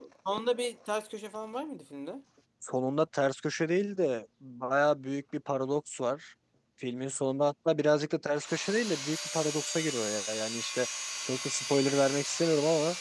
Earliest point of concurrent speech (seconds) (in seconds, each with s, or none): none